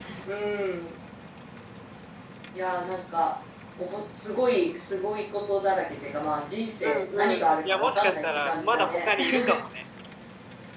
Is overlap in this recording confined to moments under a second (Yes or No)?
No